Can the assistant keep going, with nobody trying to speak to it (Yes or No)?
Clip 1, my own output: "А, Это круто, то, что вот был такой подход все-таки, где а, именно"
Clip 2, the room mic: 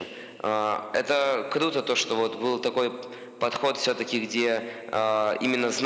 Yes